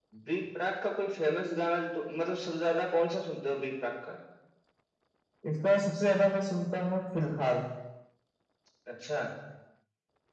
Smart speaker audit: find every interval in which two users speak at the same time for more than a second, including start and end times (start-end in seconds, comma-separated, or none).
none